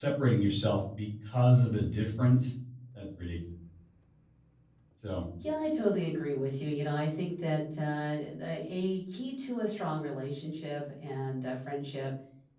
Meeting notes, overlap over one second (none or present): none